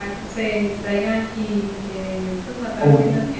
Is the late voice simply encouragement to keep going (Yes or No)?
Yes